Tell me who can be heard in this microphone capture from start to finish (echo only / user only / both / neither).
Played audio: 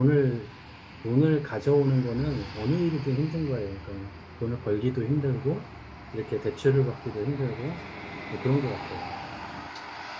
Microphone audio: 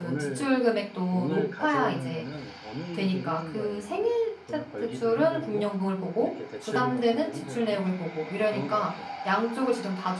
both